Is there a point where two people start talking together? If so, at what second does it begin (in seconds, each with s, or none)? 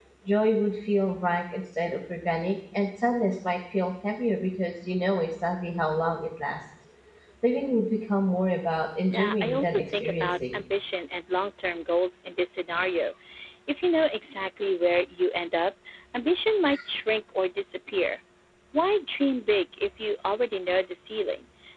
9.1 s